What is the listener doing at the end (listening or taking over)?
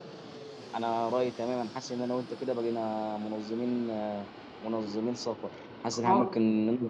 listening